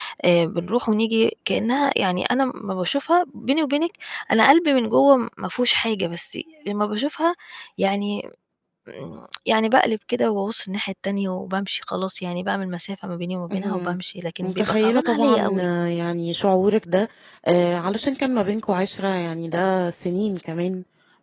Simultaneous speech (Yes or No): Yes